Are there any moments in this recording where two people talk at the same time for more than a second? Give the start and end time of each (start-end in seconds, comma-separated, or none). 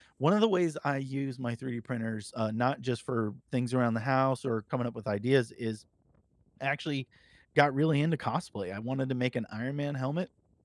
none